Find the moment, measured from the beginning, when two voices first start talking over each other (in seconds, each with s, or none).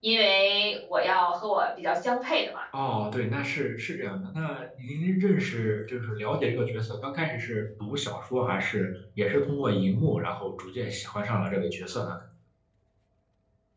none